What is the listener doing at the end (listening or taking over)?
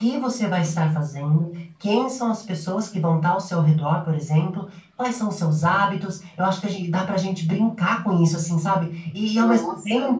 listening